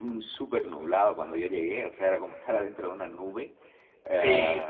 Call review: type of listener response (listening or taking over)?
listening